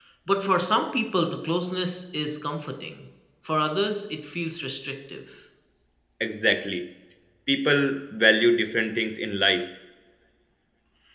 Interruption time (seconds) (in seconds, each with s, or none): none